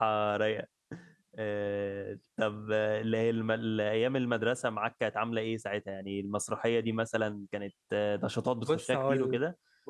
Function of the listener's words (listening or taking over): taking over